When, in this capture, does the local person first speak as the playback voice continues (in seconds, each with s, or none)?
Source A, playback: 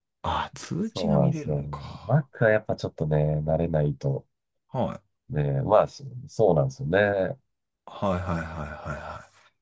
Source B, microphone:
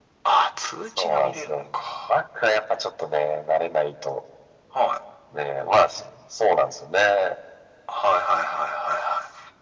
none